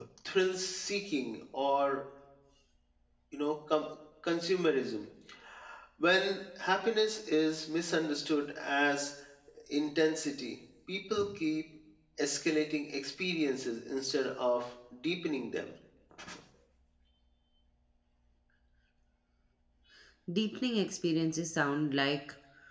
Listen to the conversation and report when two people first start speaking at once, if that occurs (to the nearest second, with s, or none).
none